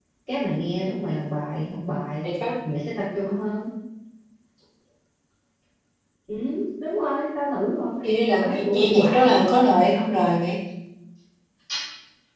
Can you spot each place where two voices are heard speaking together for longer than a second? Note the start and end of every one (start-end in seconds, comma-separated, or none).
8.0-9.4